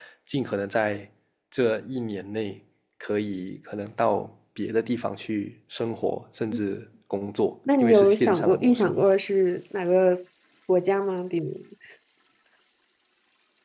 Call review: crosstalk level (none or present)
present